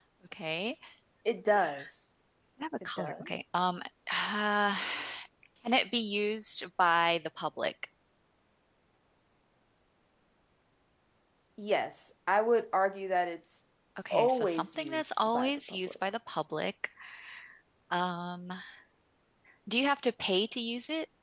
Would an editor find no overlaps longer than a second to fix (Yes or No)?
No